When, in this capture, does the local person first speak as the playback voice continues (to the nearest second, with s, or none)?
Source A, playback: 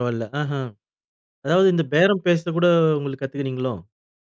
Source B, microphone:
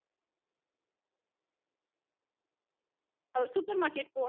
3 s